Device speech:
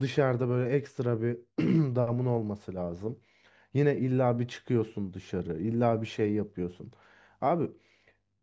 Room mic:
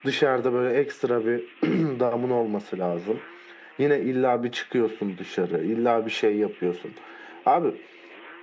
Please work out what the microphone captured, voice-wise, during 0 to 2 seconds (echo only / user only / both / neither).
echo only